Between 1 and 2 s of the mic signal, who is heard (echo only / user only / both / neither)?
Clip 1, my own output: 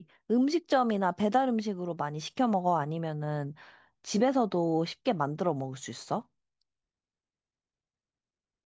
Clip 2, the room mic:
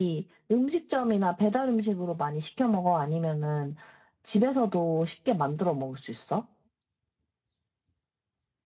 echo only